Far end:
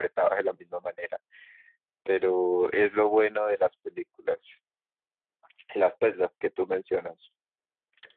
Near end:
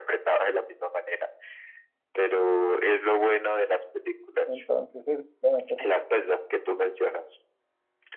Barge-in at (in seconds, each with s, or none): 4.4 s